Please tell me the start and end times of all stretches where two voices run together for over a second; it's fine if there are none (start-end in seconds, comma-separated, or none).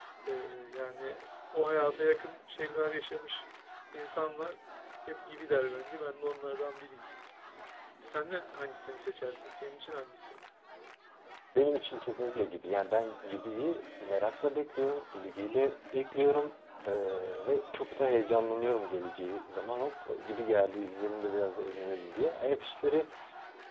none